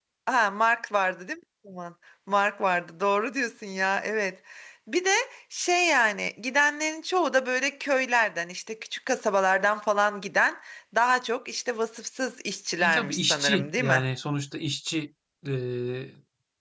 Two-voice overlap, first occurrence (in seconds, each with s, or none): 12.8 s